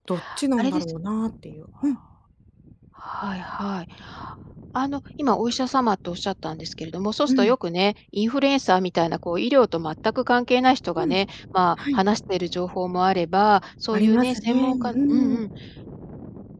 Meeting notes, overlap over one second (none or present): present